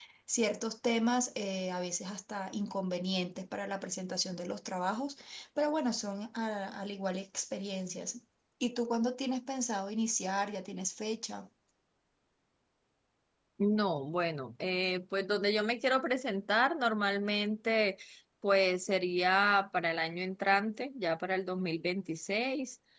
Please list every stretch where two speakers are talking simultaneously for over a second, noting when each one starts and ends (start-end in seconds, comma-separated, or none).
none